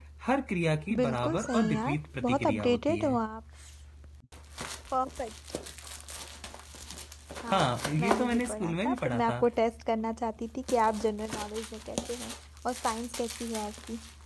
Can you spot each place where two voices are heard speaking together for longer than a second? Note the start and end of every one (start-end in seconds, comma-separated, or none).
1.0-3.2, 7.5-9.3